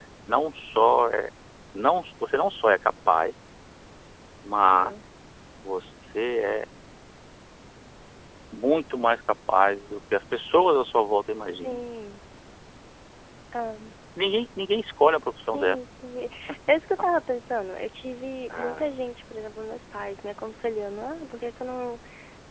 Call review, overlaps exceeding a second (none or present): none